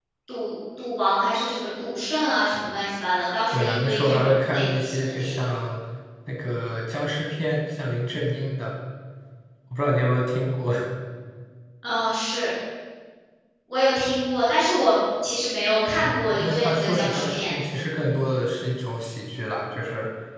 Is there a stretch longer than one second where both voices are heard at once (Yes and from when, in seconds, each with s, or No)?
Yes, from 3.5 s